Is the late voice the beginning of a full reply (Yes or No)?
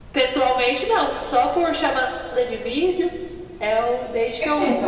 No